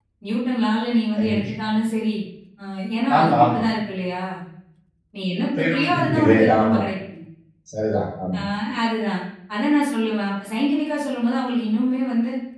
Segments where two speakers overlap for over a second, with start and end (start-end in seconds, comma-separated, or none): 5.6-6.8